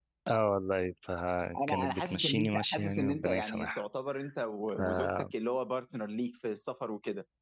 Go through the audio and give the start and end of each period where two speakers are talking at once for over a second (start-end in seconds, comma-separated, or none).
1.6-3.8